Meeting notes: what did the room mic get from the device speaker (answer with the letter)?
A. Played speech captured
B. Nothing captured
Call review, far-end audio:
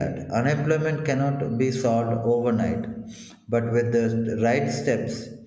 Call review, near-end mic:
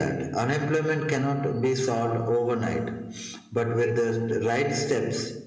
A